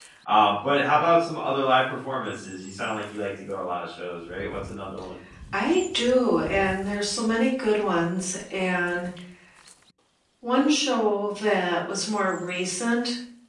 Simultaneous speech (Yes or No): No